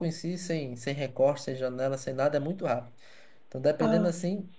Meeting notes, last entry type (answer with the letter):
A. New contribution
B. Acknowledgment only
B